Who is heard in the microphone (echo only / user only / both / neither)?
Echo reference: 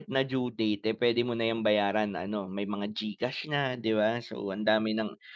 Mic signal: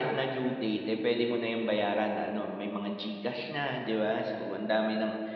echo only